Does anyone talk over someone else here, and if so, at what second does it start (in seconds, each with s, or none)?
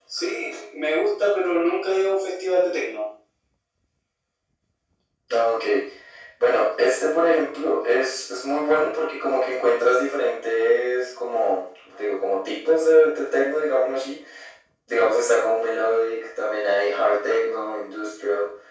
none